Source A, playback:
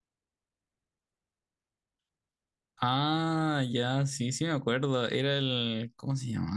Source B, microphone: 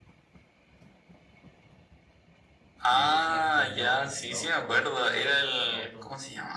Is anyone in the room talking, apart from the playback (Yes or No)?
Yes